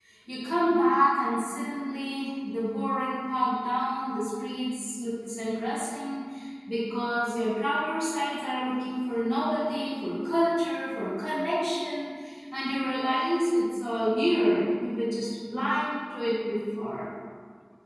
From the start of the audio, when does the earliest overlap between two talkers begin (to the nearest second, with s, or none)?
none